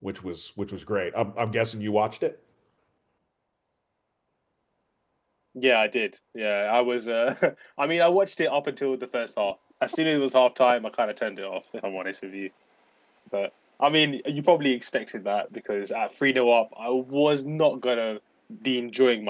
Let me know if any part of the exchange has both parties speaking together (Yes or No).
No